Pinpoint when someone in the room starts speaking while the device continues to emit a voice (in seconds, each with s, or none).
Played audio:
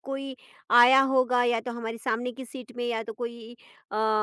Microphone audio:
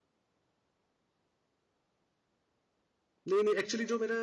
3.3 s